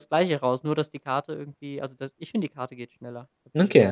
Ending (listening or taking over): taking over